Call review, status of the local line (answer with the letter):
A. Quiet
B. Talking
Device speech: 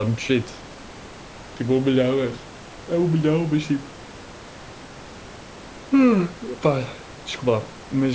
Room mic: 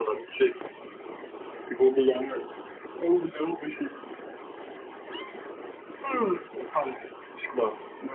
A